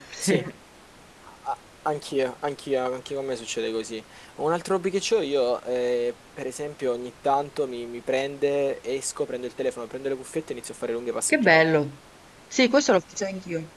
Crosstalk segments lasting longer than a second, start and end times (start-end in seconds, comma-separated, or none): none